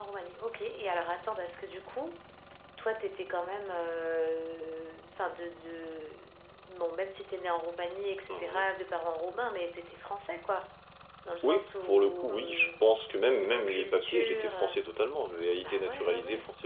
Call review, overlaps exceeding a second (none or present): present